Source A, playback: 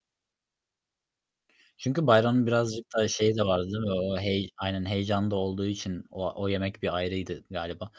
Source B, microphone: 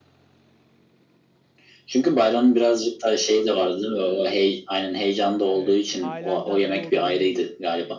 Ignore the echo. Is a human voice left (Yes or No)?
Yes